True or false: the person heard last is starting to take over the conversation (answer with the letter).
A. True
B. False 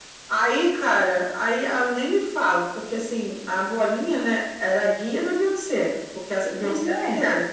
B